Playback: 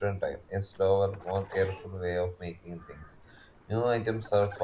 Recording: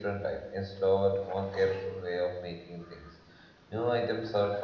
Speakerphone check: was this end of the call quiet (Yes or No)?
Yes